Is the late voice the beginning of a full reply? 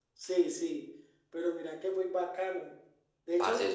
No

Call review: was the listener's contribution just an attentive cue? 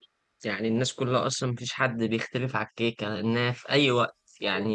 Yes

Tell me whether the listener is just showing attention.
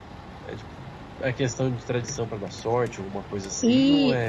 No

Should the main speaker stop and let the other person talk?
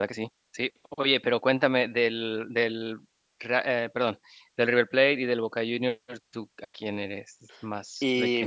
Yes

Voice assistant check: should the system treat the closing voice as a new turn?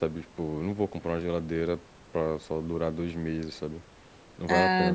Yes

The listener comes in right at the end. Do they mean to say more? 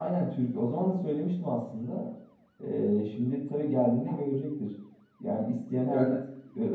No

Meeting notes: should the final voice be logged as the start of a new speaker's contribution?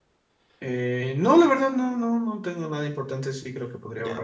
Yes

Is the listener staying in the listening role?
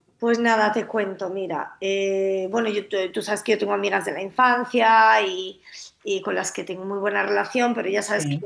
Yes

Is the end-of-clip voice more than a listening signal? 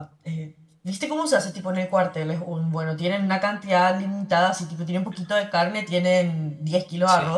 No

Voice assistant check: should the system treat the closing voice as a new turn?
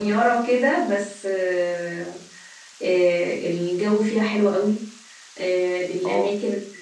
No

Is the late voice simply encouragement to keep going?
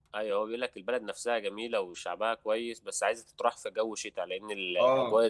No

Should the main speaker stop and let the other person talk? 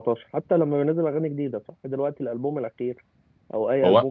No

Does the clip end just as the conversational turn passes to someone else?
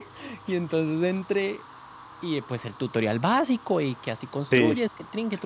No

